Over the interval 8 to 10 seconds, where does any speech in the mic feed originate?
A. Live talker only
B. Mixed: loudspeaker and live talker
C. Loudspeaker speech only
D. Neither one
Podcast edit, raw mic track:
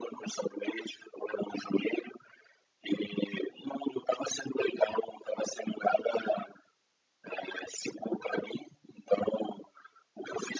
C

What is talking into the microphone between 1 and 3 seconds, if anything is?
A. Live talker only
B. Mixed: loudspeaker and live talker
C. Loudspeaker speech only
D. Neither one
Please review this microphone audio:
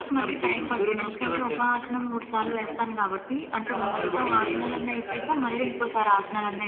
C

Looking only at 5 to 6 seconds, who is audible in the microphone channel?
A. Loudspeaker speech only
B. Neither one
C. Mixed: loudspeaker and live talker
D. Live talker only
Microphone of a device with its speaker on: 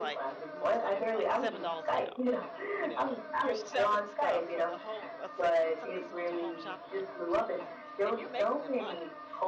C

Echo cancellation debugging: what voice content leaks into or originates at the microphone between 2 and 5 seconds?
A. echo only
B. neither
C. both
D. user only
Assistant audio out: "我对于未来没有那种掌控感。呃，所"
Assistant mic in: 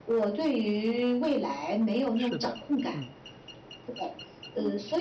C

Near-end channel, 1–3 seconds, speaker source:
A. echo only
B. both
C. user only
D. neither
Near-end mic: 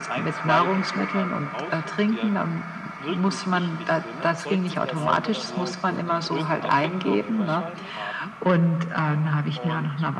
A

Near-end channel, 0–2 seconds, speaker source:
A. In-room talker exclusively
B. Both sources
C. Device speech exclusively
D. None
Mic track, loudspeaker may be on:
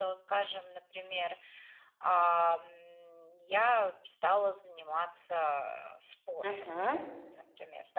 C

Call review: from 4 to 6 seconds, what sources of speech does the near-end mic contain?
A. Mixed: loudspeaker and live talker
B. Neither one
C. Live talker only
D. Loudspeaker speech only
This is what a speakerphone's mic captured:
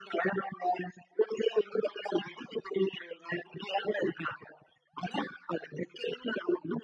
D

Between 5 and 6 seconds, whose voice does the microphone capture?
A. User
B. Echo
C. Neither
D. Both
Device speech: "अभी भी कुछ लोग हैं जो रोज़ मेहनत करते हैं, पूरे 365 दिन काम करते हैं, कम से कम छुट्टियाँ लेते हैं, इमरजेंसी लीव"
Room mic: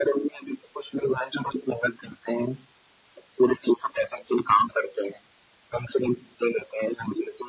B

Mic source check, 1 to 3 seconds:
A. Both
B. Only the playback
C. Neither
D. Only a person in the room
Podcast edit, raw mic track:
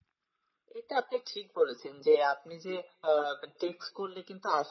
B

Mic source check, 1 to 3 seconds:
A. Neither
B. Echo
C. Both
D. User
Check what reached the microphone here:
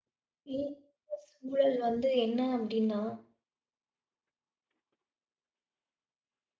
D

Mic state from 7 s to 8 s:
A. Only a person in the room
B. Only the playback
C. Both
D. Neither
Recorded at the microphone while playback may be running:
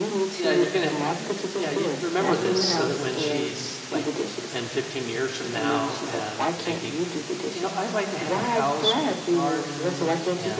C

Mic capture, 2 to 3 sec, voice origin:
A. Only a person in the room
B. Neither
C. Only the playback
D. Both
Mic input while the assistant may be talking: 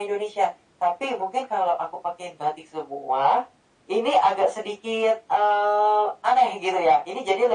C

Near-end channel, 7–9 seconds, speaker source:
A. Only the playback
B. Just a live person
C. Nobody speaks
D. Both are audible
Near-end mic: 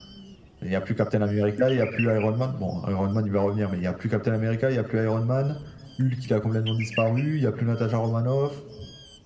A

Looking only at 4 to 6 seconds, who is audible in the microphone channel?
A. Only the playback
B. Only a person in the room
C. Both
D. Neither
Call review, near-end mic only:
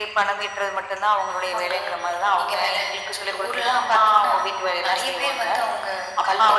A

